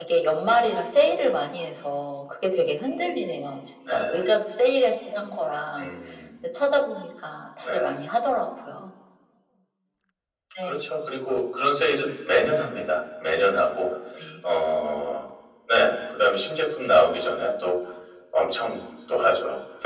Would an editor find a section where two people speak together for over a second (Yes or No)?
No